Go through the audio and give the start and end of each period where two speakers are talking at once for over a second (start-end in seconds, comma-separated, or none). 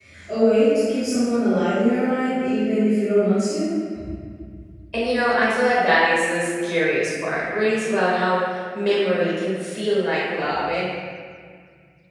none